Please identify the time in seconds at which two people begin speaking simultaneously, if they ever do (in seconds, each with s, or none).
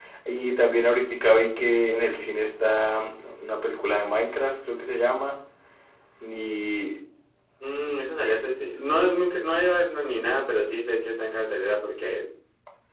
none